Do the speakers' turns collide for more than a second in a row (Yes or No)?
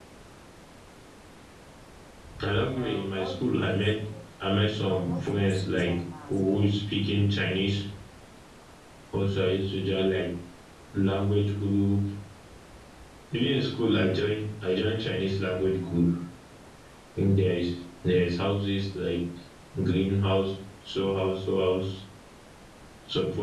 Yes